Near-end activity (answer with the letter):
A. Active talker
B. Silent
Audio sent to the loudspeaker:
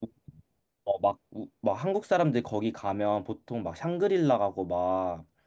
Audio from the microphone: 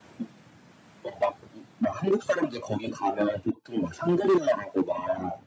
B